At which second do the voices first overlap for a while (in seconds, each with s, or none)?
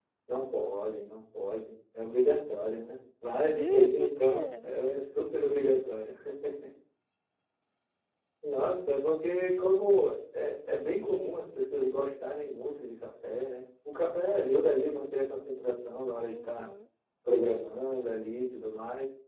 3.4 s